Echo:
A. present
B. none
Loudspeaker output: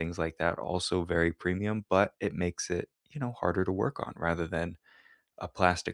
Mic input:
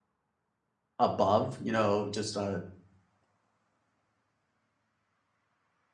B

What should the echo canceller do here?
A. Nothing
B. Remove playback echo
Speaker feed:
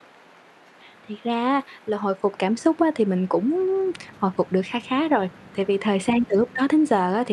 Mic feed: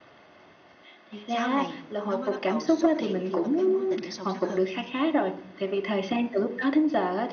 B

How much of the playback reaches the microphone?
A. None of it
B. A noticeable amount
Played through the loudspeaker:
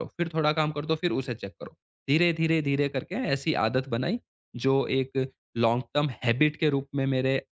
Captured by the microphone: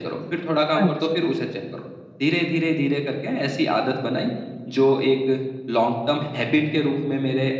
B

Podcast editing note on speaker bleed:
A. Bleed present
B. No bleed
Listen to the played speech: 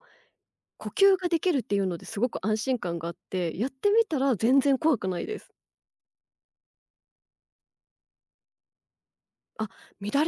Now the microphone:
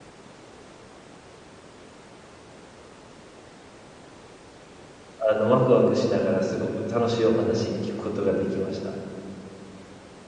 B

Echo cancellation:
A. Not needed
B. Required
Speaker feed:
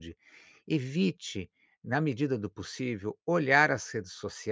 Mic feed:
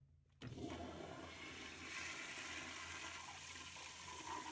A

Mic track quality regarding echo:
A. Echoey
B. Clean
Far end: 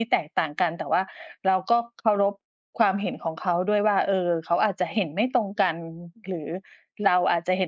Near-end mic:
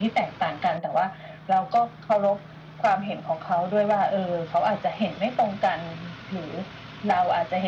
A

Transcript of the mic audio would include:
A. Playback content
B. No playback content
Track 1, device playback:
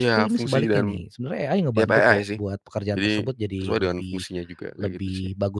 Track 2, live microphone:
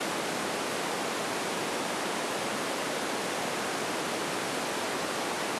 B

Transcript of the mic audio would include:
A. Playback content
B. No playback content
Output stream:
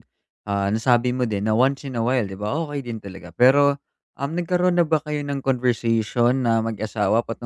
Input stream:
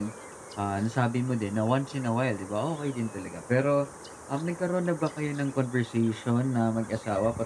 A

